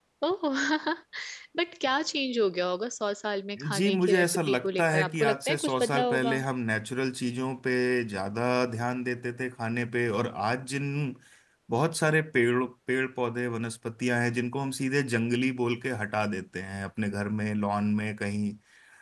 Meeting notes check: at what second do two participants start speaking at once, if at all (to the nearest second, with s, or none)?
4 s